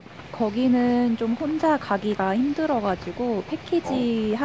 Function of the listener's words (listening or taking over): listening